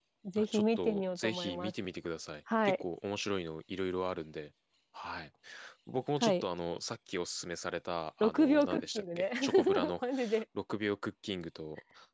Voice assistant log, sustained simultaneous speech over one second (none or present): present